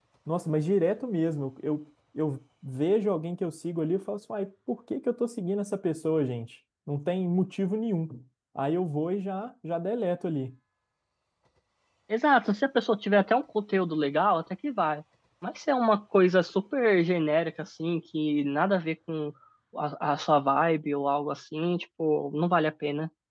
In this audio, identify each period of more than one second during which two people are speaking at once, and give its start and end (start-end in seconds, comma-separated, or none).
none